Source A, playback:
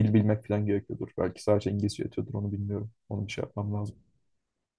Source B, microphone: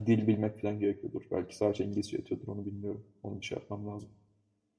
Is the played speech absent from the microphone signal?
No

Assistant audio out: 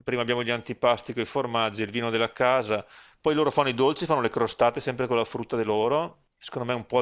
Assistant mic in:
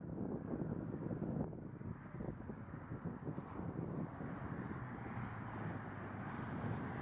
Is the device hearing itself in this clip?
No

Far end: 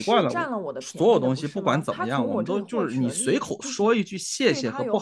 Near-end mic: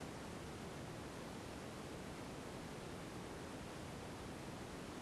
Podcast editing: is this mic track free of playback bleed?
Yes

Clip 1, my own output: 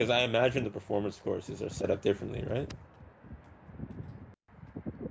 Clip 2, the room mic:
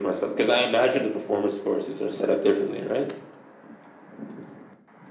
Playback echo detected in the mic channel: Yes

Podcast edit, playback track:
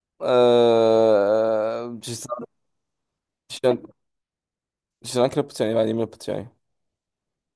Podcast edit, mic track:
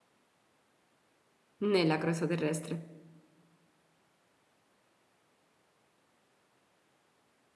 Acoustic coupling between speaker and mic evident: No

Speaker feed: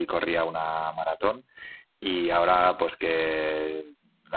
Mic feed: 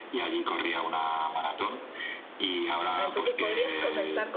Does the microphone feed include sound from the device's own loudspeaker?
Yes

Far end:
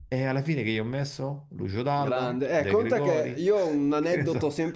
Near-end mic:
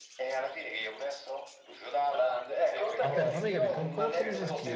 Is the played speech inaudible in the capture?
No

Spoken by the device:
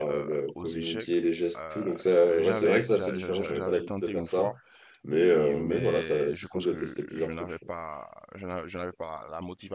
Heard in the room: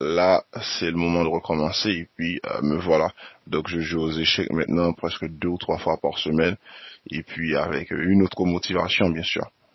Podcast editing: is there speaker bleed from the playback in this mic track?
No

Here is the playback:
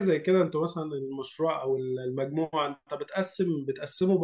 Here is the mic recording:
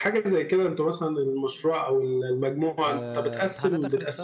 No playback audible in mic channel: No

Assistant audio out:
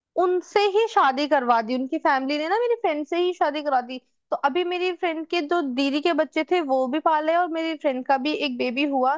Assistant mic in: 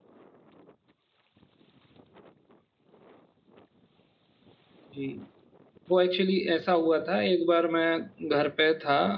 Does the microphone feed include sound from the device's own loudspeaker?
No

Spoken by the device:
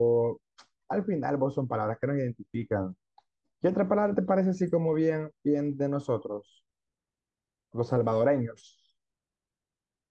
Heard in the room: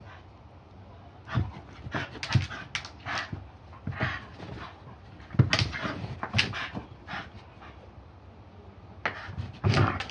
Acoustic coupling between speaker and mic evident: No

